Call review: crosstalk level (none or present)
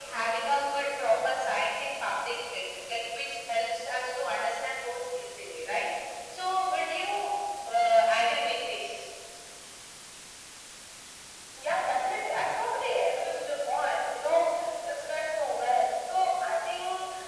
none